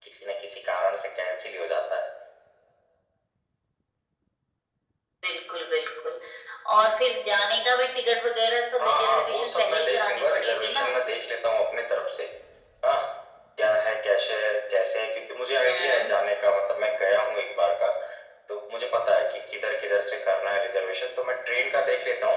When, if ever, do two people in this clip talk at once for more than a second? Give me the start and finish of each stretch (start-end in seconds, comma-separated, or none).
8.8-10.9